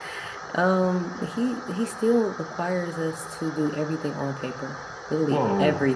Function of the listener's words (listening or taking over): taking over